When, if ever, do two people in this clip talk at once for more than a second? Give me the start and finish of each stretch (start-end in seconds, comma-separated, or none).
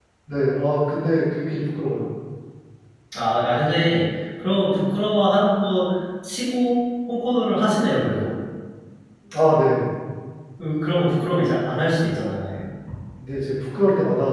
none